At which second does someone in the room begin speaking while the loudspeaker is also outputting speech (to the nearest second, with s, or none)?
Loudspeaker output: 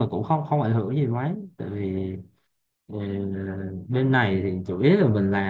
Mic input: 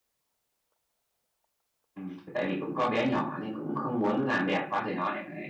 2 s